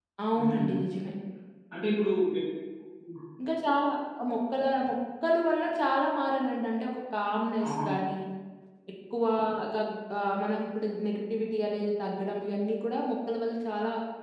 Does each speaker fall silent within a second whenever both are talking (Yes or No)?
Yes